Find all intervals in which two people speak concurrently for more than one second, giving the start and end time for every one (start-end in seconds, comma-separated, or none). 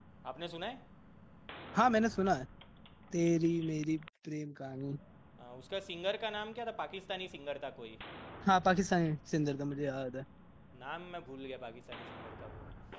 none